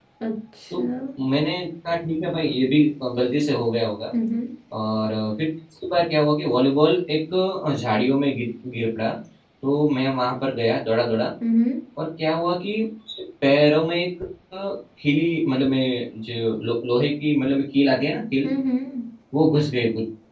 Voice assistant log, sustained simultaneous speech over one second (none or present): none